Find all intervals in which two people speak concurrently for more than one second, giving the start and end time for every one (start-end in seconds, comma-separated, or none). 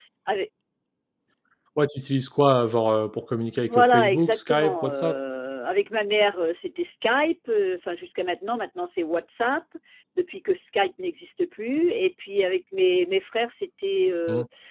3.7-5.2